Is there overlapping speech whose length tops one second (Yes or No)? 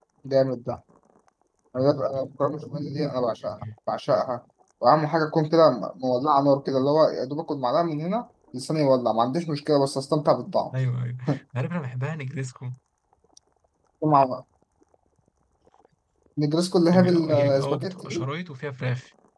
Yes